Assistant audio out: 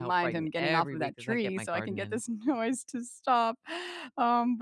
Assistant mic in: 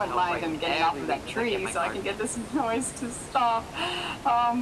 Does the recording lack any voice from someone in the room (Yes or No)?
Yes